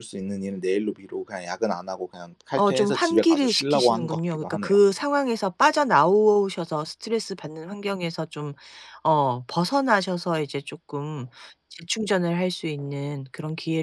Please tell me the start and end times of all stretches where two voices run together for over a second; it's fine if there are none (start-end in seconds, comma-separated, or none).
2.5-4.7